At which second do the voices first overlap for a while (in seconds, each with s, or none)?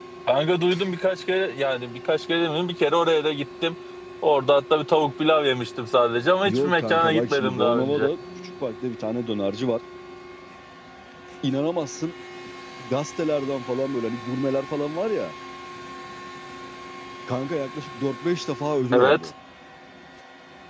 6.5 s